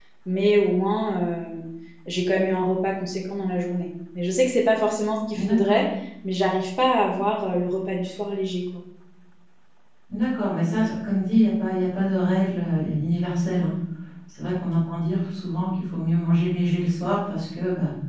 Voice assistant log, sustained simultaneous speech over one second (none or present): none